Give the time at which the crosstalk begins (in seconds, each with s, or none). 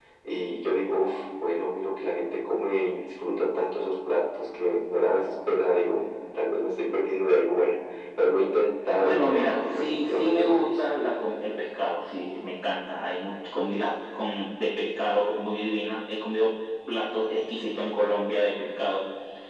9.0 s